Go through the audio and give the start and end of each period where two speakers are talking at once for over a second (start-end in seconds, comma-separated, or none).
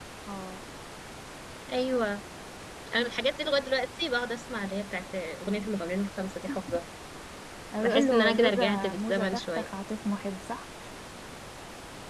7.8-9.6